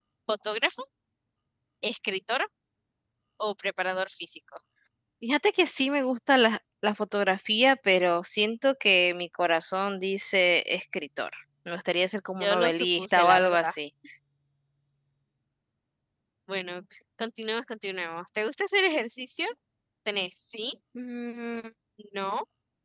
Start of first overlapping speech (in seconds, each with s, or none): 12.4 s